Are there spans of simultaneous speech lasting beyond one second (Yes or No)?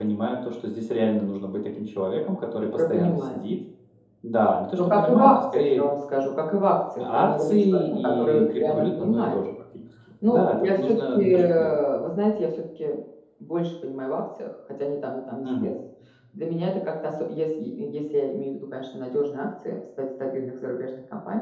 Yes